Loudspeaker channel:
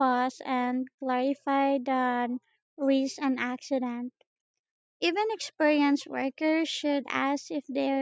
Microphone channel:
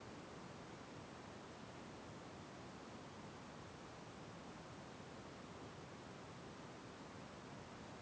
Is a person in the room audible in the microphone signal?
No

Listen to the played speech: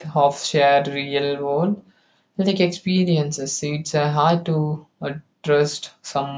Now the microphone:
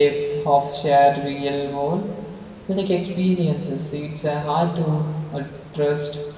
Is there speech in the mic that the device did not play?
No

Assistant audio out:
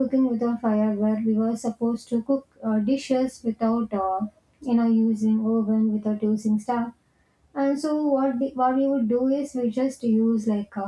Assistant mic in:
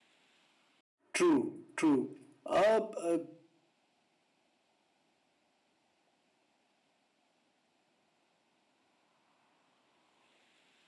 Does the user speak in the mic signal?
Yes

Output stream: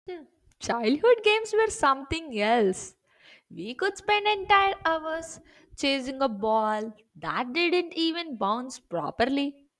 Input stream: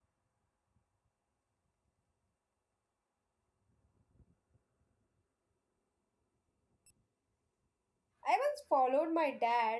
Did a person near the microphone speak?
Yes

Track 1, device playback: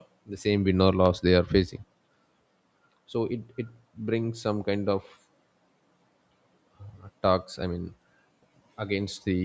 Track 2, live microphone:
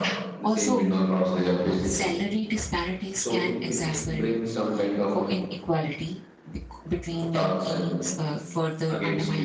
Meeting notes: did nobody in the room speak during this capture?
No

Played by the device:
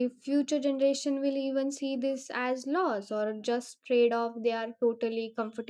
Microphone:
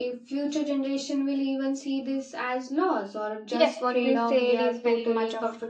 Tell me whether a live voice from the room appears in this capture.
Yes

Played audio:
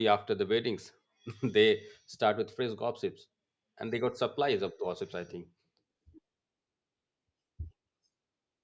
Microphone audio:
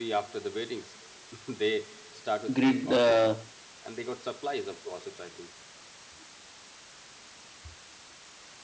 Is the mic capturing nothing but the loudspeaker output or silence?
No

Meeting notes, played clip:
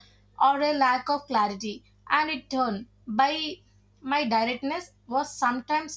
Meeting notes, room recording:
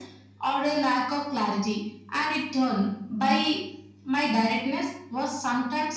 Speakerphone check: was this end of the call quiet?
Yes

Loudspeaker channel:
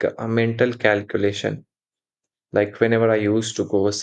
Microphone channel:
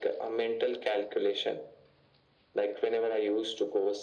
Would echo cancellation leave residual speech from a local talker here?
No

